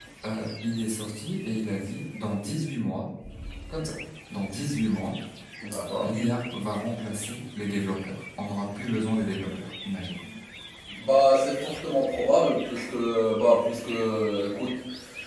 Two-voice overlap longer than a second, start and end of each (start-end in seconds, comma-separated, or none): none